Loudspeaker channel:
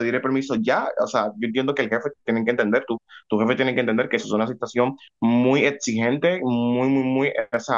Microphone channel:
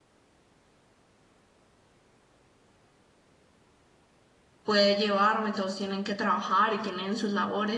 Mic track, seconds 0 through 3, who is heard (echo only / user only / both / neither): neither